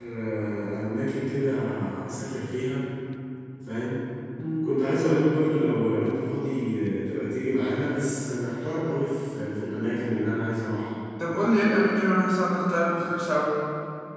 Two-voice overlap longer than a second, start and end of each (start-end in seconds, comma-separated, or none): none